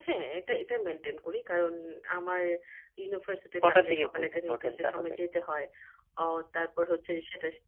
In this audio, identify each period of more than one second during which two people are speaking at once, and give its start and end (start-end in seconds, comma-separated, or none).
3.6-5.1